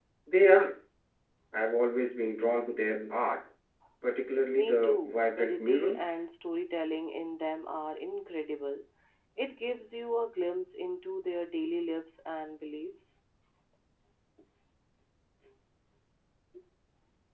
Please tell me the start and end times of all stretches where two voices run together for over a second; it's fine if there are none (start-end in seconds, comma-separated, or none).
4.5-6.2